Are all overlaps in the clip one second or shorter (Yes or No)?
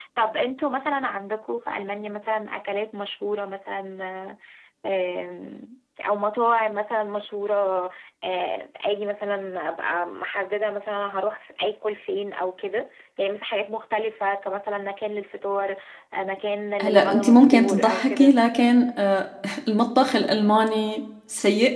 No